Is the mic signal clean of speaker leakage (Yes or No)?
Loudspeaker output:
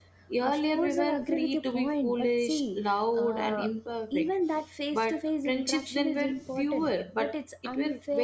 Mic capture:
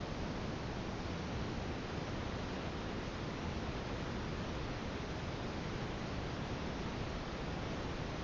Yes